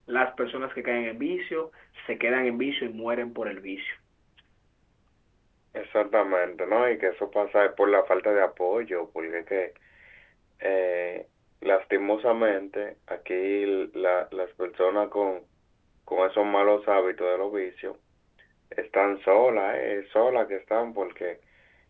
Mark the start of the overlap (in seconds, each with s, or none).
none